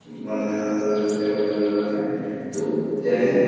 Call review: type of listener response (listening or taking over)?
listening